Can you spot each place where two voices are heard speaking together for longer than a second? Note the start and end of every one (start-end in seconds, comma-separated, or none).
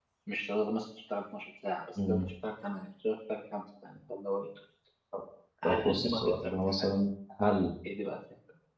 5.7-6.9